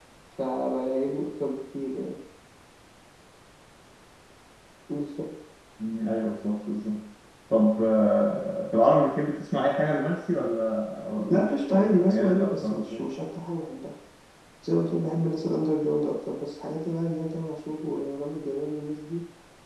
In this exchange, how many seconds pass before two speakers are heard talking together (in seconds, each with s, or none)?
11.3 s